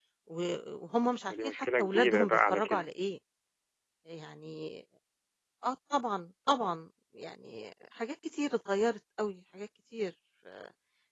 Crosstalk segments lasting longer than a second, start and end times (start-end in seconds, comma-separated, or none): 1.3-2.8